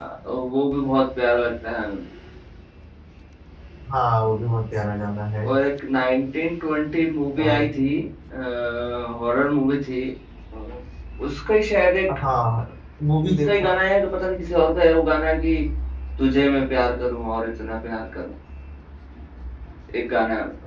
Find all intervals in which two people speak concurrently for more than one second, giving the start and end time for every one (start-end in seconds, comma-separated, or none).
none